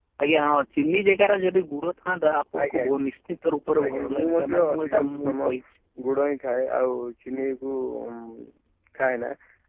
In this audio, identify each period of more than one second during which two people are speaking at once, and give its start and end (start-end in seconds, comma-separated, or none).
3.8-5.5